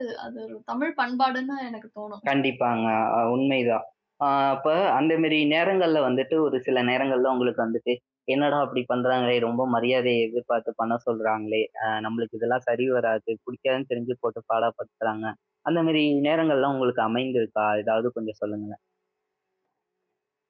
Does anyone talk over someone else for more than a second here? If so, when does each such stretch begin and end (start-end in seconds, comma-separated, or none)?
none